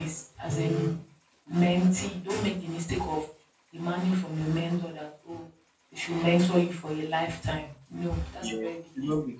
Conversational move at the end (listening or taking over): taking over